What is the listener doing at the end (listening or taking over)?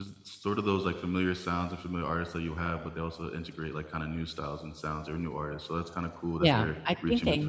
taking over